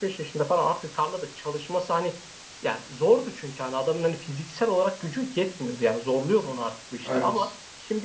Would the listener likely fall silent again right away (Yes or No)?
Yes